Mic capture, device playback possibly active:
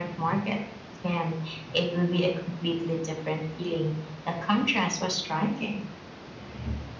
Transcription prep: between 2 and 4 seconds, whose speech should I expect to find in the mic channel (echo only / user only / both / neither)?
echo only